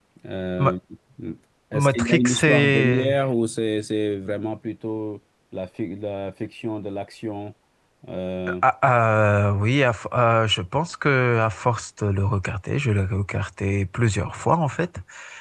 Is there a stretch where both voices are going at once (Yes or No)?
Yes